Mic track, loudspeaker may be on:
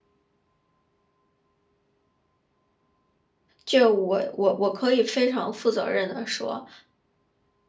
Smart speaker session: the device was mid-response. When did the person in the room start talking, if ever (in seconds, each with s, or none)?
3.6 s